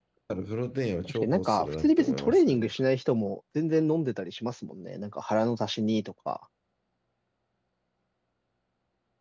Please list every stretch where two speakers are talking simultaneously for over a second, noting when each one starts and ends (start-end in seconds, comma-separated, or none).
1.0-2.7